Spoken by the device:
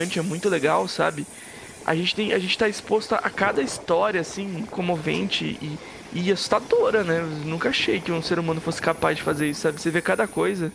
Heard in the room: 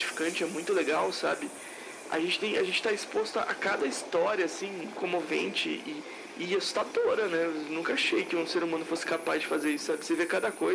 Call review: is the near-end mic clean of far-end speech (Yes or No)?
No